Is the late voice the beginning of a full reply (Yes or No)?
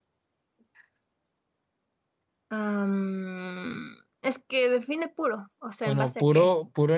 Yes